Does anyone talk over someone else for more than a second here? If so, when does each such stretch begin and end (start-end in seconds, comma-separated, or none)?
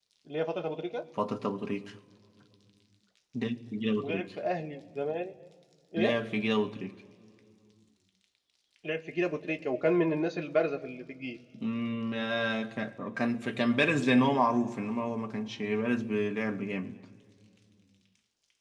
none